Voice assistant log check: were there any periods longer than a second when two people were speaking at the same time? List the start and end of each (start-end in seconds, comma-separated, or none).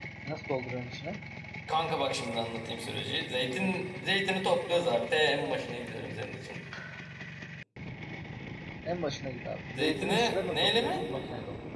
9.8-11.0